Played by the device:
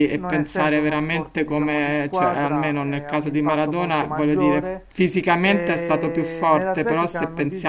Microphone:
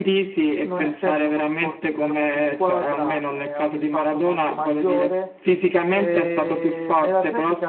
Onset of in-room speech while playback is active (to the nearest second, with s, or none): none